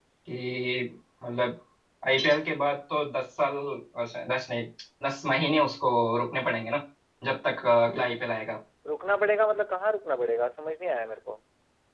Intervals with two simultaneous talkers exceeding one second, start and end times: none

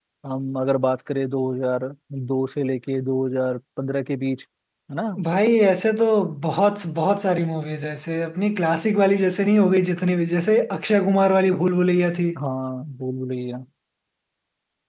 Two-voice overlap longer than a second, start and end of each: none

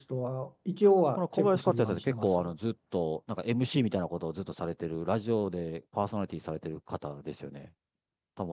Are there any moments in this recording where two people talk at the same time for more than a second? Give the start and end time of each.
1.2-2.4

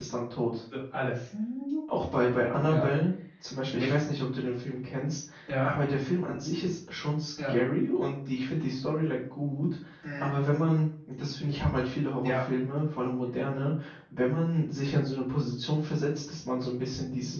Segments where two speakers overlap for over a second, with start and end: none

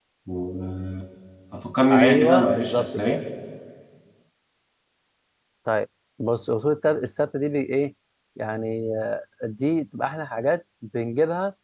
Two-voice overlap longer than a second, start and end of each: 1.9-3.1

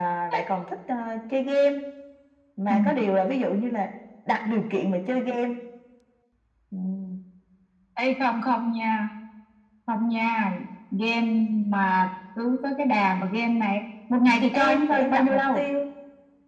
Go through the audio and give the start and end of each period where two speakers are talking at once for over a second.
14.2-15.6

